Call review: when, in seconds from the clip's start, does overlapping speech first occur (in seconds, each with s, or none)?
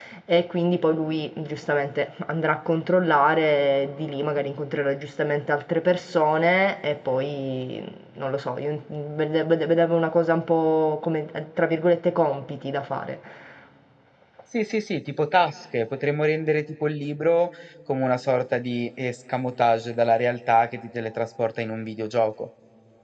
none